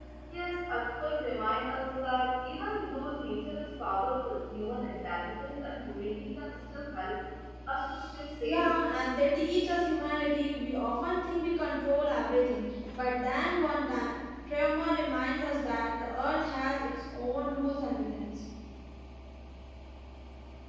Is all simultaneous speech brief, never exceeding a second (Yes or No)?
Yes